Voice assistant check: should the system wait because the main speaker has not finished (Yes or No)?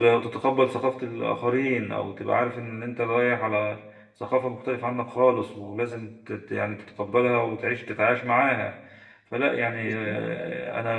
Yes